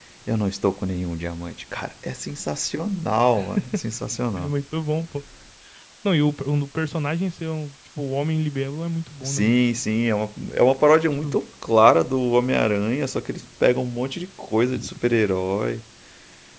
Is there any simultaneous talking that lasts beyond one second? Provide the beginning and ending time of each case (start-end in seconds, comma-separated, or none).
none